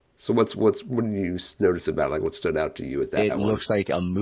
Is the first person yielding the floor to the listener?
Yes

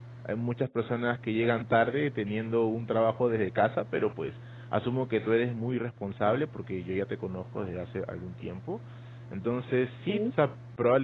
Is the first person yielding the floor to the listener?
No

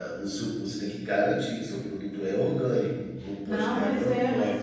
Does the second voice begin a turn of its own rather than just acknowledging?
Yes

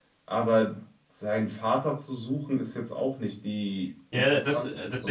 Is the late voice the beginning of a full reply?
Yes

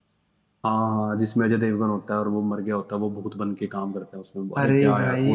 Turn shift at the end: Yes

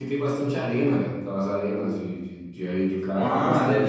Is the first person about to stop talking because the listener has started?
Yes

